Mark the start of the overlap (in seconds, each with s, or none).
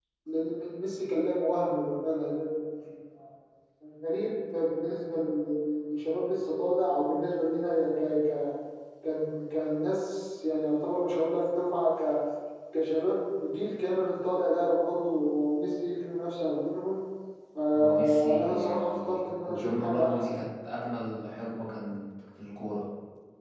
17.7 s